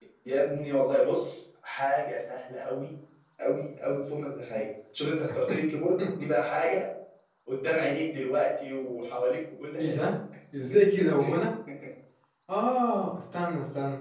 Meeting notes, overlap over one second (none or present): none